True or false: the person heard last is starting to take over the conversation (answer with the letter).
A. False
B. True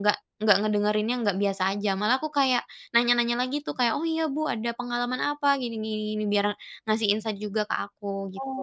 B